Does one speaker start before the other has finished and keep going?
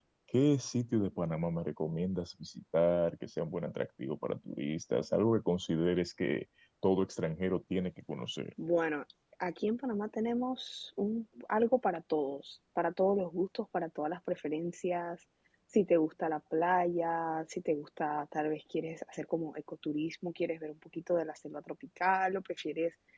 No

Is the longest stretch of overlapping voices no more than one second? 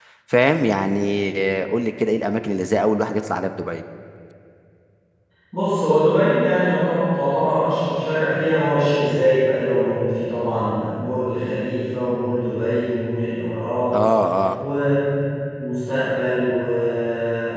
Yes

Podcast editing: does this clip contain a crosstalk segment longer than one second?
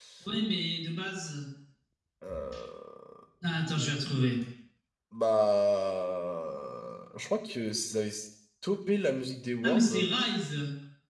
No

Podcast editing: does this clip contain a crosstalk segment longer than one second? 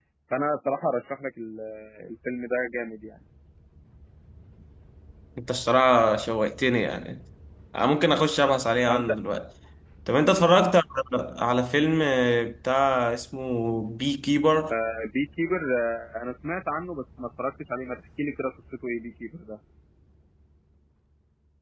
No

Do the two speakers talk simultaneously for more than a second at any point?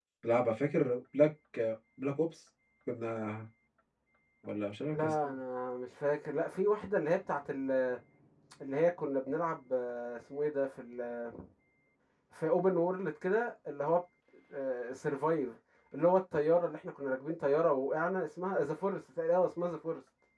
No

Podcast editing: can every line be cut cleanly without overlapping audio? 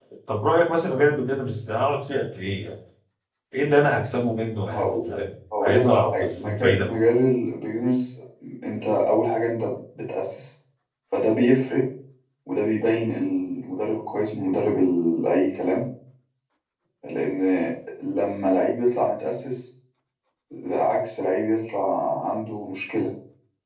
No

